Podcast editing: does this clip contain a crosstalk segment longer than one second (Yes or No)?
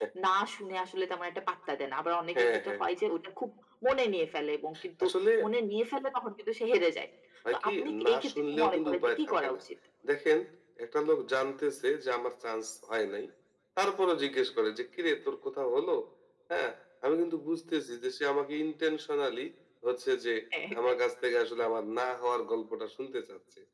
Yes